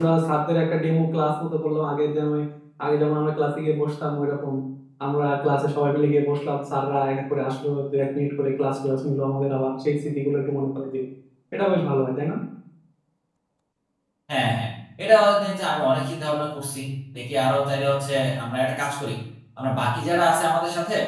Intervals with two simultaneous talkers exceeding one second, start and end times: none

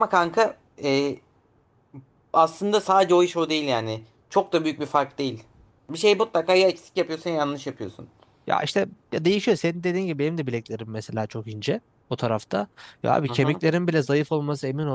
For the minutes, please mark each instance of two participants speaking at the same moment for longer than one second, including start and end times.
none

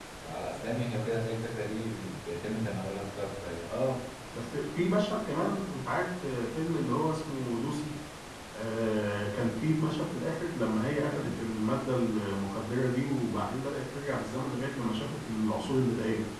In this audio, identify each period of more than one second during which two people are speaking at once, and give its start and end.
none

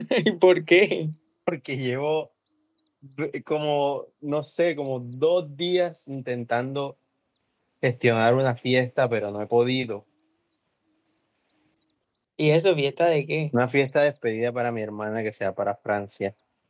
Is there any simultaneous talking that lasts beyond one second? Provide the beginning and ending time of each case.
none

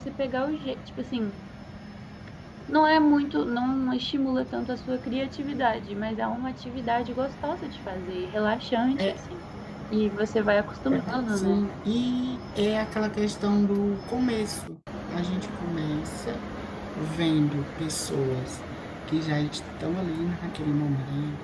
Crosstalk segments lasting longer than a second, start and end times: none

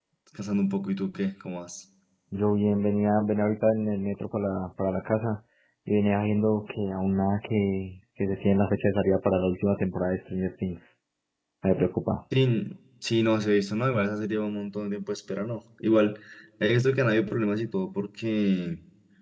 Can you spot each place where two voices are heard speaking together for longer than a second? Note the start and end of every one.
none

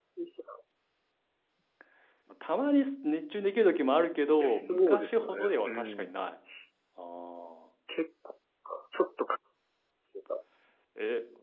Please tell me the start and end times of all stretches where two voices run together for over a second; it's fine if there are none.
4.4-6.2

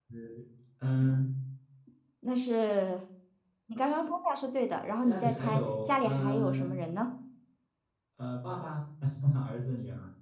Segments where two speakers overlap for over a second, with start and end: 5.1-6.7

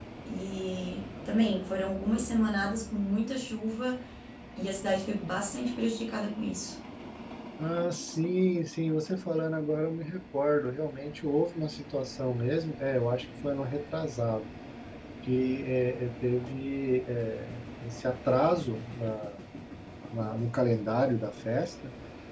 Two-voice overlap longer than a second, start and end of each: none

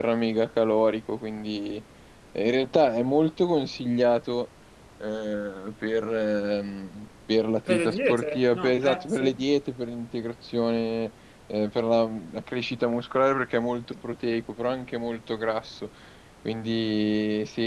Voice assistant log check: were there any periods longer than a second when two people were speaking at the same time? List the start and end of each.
7.7-9.3

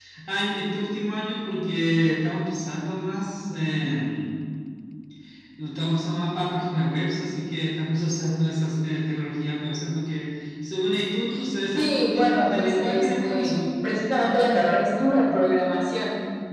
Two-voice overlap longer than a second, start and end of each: 11.8-13.6

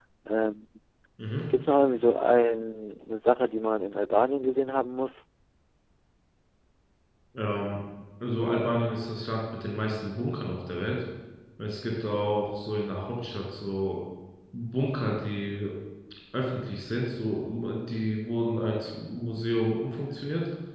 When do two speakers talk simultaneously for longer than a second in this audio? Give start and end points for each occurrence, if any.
none

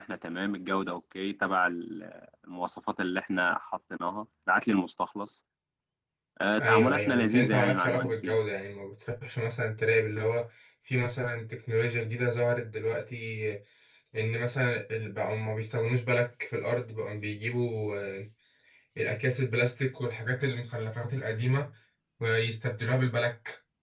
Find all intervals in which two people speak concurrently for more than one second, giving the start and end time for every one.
6.6-8.3

